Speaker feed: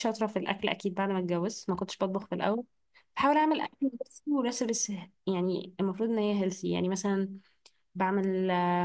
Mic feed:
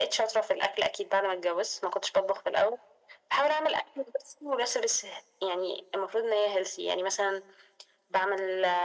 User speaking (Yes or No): No